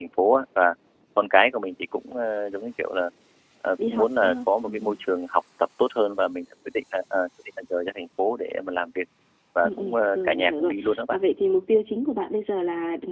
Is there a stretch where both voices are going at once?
Yes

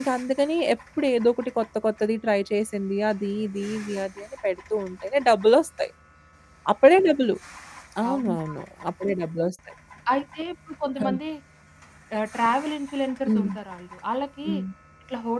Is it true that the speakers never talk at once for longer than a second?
Yes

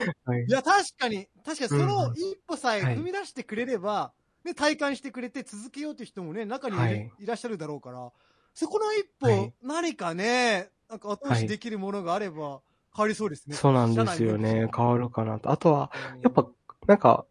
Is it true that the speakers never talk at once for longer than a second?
No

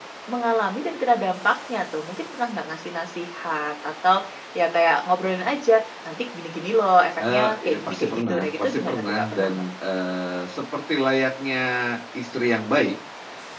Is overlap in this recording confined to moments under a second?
No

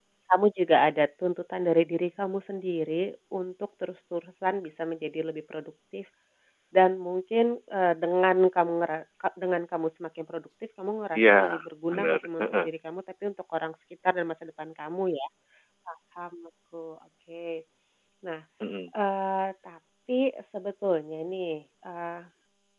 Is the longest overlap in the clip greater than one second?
Yes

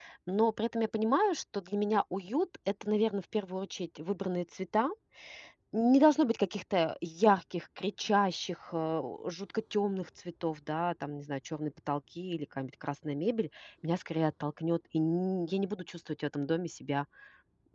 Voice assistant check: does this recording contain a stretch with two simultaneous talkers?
No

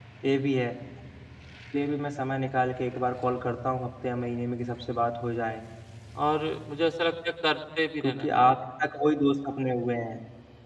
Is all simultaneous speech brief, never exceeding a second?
Yes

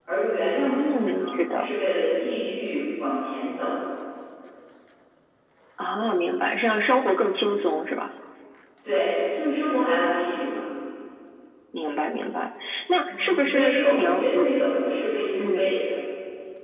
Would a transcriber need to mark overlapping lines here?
Yes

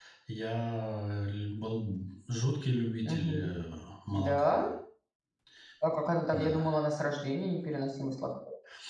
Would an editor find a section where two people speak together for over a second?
No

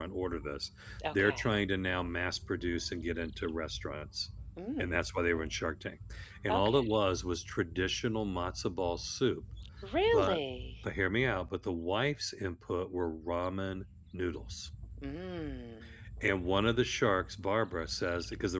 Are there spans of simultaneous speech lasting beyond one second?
No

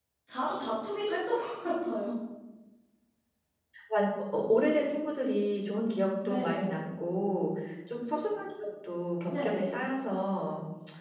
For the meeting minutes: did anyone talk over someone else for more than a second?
No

